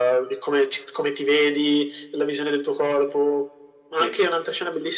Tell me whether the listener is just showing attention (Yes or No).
Yes